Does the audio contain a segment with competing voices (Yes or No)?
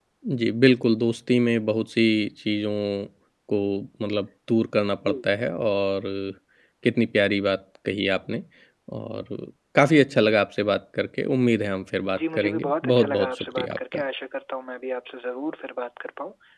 Yes